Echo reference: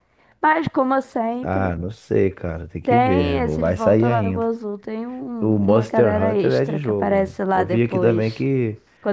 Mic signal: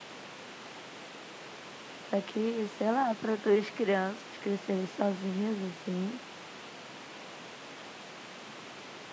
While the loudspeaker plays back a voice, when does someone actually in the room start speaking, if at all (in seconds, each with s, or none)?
2.0 s